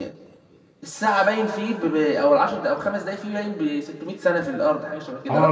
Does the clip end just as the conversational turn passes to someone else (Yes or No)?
Yes